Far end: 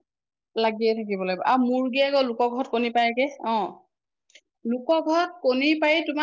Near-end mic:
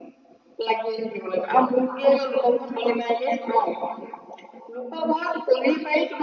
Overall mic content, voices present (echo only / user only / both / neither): echo only